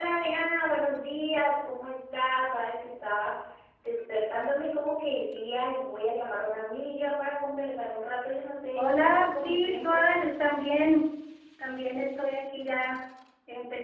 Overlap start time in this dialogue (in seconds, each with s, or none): 8.8 s